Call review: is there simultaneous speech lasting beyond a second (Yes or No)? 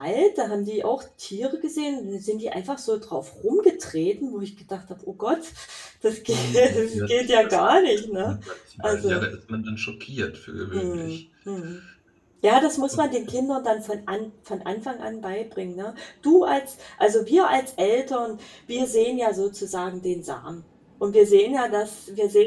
Yes